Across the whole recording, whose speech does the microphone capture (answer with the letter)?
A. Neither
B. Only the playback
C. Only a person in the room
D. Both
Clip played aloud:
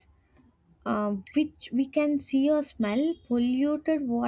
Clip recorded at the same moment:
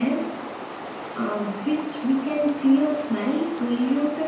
B